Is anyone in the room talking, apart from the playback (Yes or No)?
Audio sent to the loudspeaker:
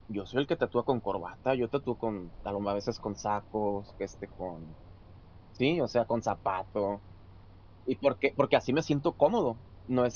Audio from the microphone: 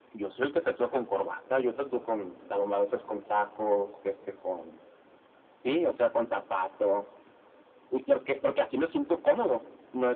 No